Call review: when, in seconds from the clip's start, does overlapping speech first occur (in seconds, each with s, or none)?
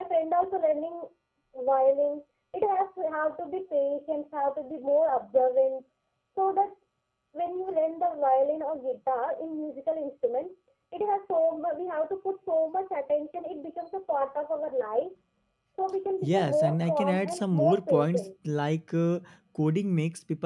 16.2 s